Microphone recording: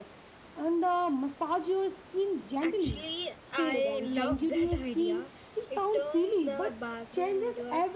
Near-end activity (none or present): present